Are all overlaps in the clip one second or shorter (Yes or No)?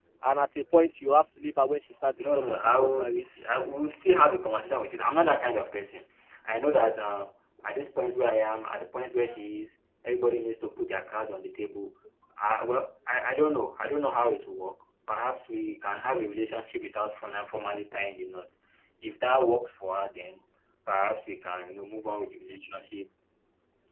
No